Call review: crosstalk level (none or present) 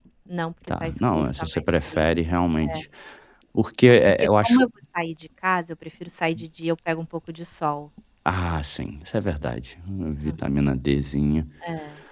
present